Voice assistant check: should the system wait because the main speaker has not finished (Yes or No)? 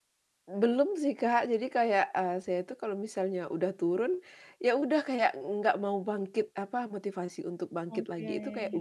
Yes